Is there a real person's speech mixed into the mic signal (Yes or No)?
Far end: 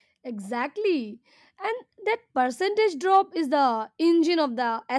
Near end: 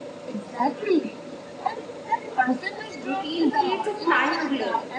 Yes